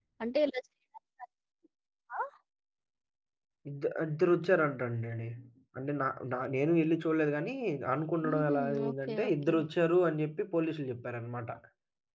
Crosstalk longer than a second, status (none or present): present